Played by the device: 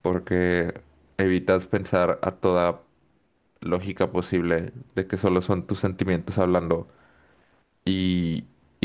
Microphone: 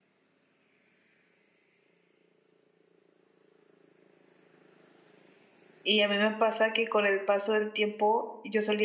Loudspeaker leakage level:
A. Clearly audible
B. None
B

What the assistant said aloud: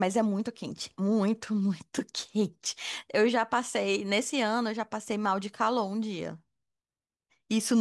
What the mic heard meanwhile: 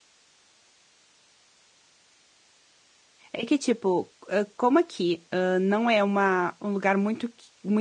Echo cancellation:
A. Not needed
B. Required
A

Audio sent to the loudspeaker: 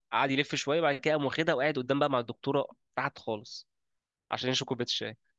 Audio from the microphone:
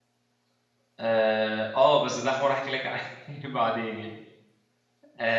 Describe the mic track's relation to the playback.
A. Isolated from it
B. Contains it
A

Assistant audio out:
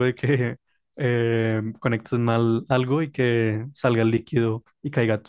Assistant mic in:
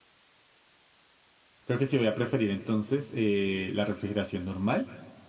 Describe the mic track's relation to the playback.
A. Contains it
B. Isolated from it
B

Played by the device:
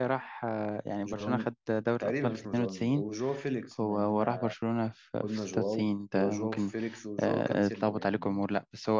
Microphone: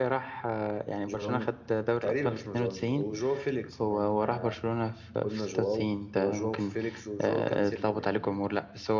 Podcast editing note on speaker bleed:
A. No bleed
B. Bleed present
B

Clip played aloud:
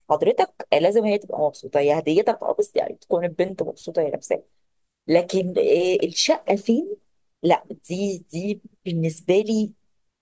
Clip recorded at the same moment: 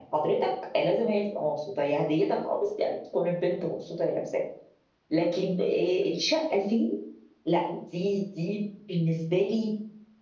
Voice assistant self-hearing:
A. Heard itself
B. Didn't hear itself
A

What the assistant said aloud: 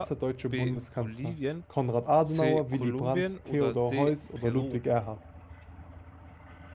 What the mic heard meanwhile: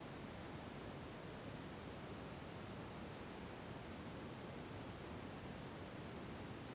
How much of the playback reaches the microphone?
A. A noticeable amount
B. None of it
B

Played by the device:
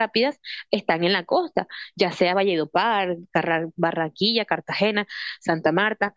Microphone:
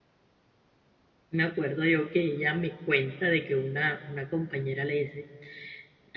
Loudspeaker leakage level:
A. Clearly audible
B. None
B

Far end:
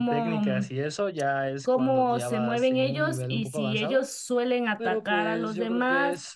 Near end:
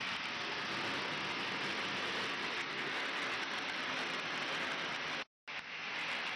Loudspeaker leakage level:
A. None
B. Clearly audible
A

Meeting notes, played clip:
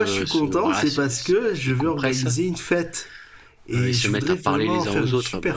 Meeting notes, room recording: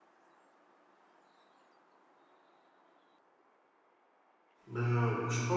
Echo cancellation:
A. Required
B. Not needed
B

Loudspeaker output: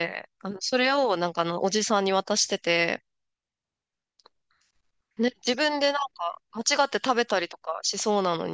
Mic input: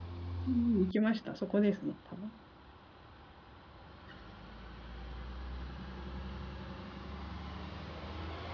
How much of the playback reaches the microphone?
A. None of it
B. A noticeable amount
A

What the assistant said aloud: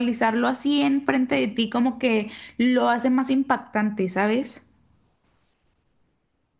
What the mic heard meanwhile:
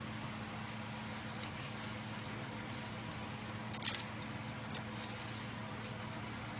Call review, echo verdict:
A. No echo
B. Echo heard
A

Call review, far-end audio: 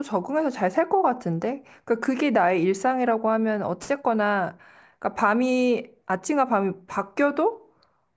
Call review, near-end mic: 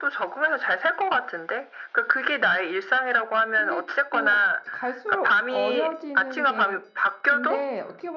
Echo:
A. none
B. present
B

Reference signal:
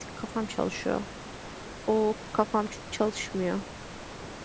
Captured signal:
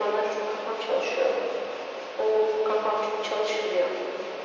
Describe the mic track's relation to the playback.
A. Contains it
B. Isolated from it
A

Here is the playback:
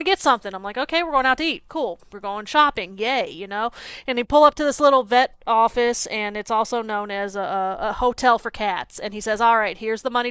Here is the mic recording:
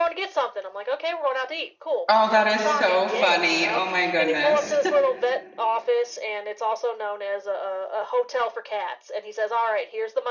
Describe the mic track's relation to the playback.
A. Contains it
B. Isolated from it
A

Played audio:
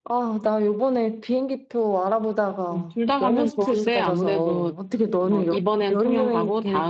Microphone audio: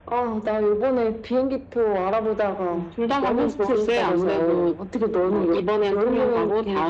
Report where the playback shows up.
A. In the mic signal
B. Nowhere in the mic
A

